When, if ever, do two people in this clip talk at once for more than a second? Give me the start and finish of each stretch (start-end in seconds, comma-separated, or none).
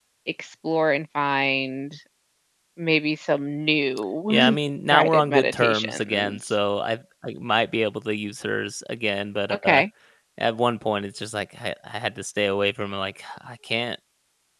4.9-6.4